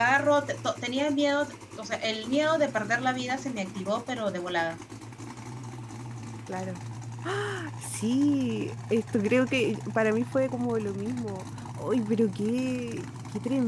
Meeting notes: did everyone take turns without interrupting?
Yes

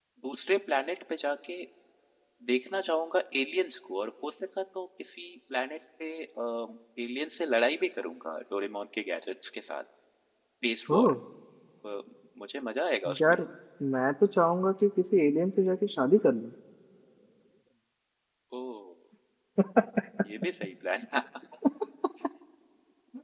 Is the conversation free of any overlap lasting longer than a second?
Yes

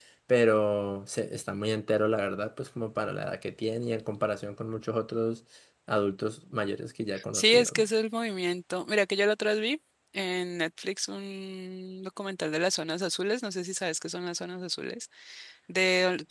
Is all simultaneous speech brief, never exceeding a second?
Yes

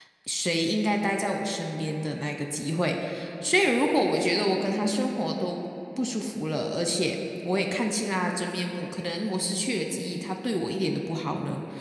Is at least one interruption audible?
No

